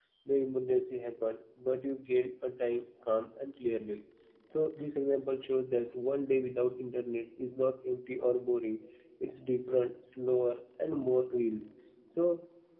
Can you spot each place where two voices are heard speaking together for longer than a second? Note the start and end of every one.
none

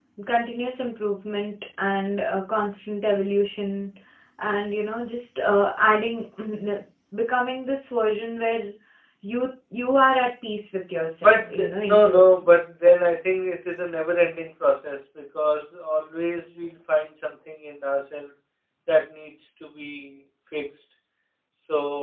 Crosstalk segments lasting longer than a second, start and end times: 11.2-12.5

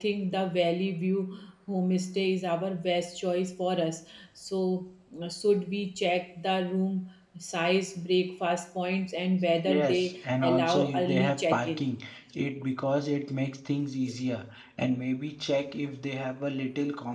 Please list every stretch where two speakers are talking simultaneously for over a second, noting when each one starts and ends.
9.6-11.8

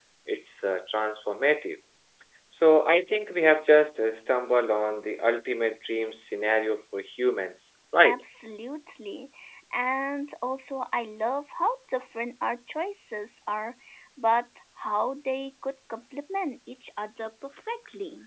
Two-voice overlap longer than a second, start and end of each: none

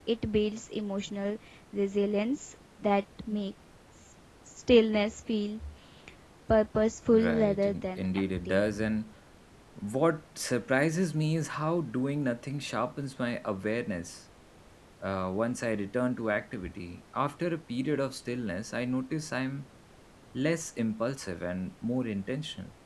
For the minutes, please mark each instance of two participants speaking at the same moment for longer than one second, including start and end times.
7.1-8.7

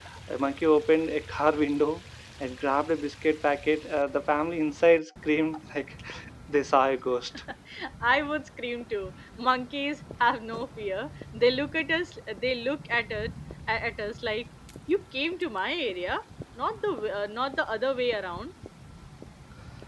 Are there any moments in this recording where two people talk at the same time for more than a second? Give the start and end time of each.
none

